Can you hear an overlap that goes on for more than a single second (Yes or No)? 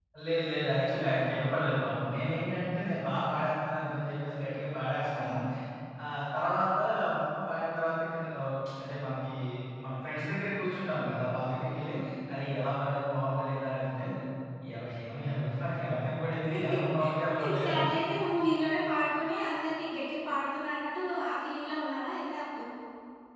No